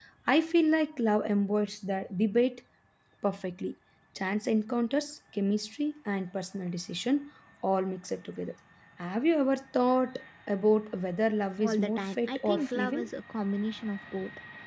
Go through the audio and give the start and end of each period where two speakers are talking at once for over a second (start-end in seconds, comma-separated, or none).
11.6-13.1